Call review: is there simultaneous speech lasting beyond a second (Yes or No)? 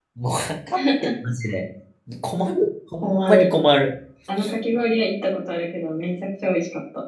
No